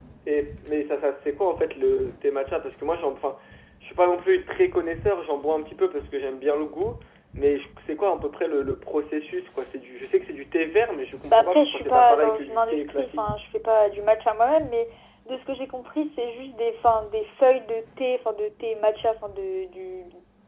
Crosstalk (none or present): present